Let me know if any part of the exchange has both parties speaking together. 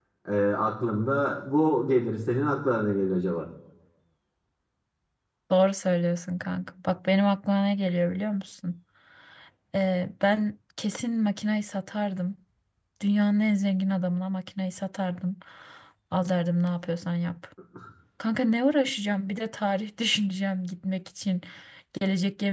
No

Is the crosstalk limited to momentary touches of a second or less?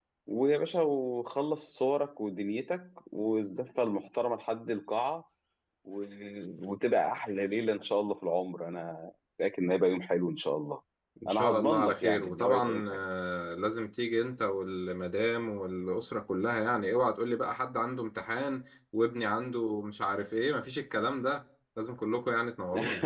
No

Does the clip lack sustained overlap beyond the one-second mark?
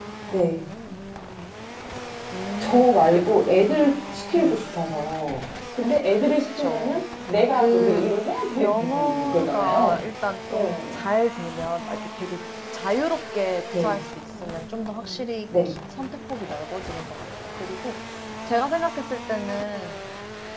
No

